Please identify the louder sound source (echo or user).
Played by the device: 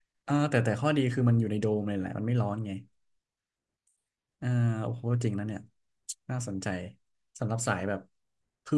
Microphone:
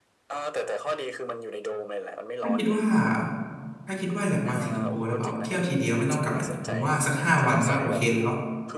user